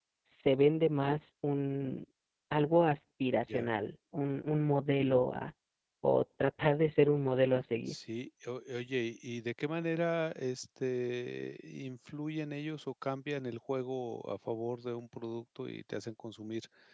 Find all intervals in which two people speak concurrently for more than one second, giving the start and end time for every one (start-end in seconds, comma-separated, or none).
none